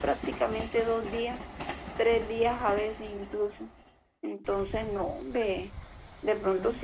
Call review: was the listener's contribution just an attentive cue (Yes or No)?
Yes